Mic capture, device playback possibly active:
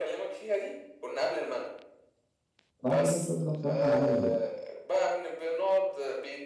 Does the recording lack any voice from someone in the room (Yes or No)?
No